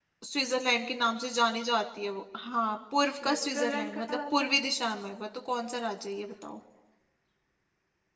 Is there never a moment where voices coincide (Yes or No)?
No